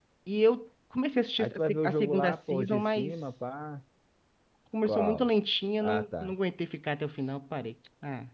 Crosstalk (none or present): present